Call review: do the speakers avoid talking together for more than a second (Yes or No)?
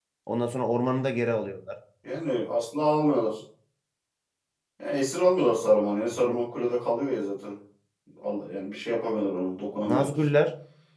Yes